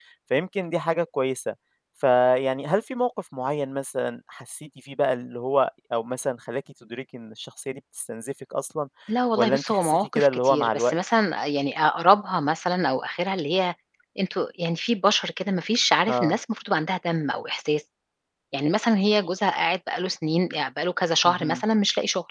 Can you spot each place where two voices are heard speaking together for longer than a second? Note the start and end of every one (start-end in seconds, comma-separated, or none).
9.4-11.0